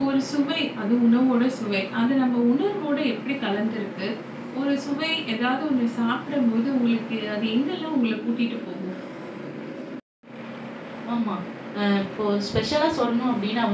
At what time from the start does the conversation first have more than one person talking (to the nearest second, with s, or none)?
none